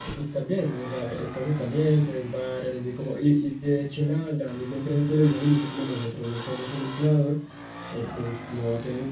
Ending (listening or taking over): listening